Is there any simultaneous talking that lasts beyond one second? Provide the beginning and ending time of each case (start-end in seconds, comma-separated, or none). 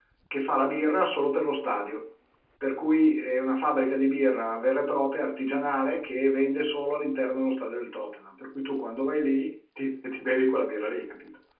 none